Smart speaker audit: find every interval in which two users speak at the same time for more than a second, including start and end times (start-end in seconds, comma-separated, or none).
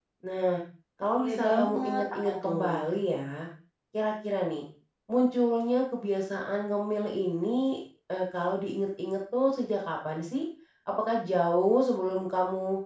1.1-2.7